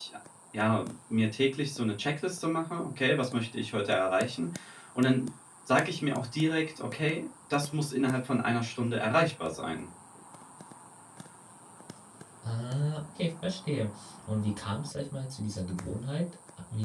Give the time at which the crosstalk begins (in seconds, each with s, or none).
none